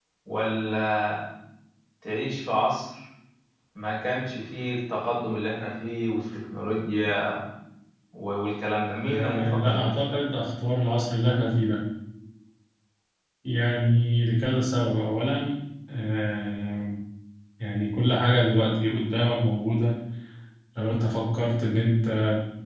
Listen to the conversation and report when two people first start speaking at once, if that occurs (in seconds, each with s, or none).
9.0 s